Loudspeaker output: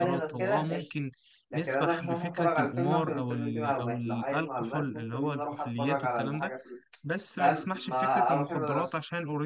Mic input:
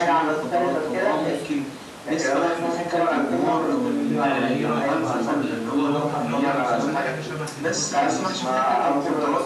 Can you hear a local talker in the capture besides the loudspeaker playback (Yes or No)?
Yes